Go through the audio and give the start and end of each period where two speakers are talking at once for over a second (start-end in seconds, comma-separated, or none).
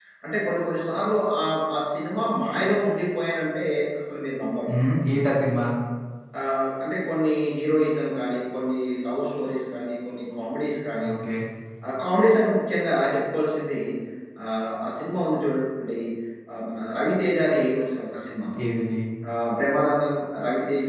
none